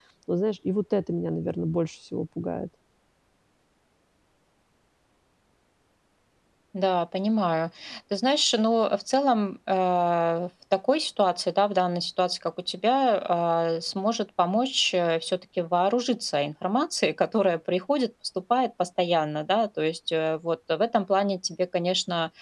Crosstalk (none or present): none